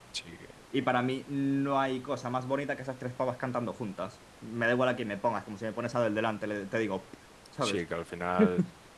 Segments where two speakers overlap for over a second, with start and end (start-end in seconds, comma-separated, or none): none